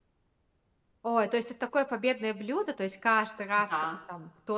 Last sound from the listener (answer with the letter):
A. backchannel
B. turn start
A